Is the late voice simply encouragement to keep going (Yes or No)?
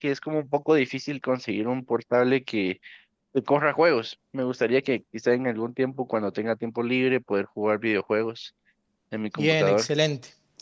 No